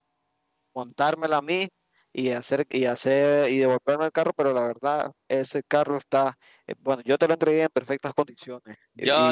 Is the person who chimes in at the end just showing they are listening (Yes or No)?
No